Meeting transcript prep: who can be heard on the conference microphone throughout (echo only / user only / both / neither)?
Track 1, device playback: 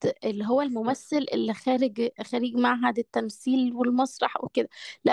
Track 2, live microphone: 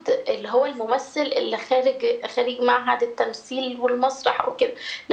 echo only